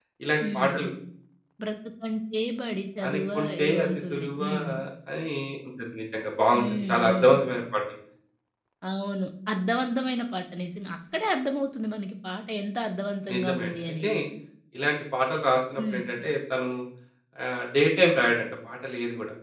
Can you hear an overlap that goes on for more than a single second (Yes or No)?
Yes